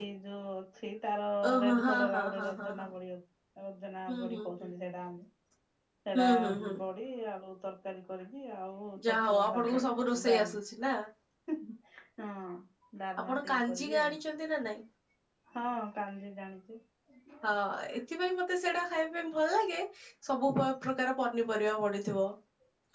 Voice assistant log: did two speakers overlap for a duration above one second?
Yes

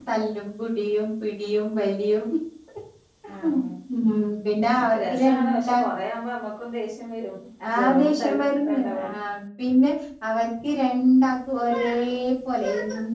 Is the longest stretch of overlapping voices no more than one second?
No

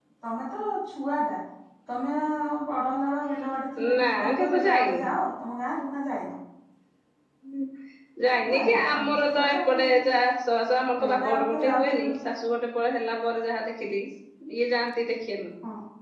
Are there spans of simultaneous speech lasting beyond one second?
Yes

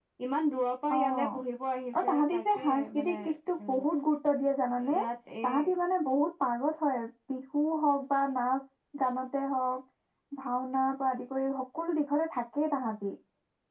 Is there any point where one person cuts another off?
Yes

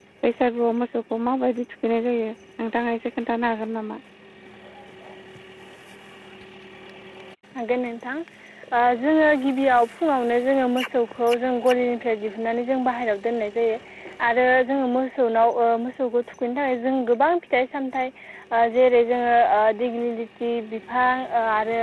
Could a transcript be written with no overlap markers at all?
Yes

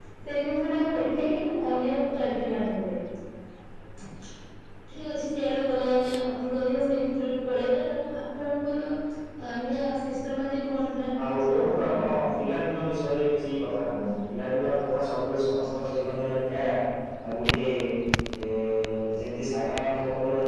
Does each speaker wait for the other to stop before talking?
No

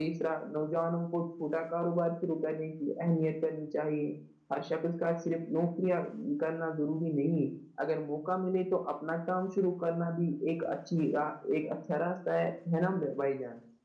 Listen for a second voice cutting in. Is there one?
No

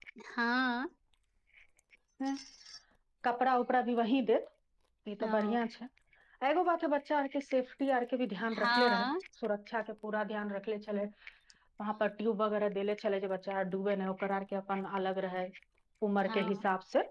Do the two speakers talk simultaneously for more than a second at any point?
No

